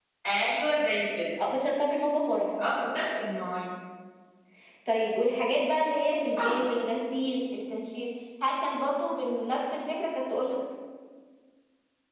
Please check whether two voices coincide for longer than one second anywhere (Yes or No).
No